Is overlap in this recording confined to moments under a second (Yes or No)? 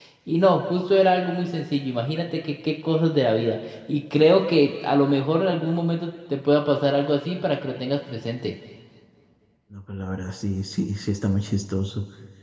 Yes